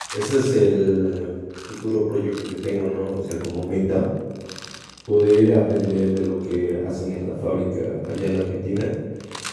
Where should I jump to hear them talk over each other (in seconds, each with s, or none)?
none